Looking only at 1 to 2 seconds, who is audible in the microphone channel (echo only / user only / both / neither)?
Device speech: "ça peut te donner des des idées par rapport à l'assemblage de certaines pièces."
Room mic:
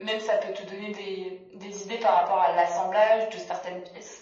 echo only